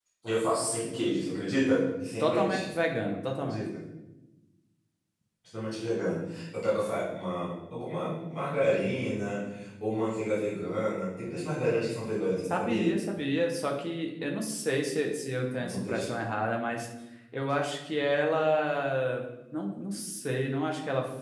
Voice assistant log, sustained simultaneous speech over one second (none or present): none